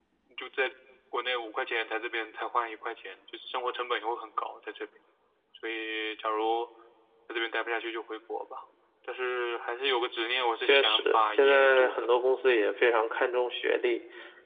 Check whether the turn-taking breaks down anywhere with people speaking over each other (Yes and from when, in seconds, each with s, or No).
Yes, from 10.7 s